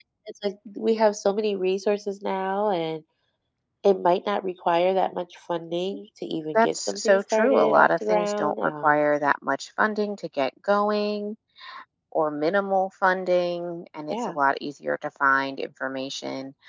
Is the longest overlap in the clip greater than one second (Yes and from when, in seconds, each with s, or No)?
Yes, from 6.5 s